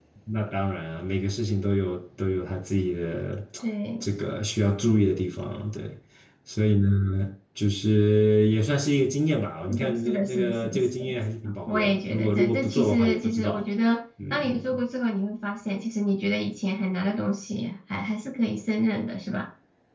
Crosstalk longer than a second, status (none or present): present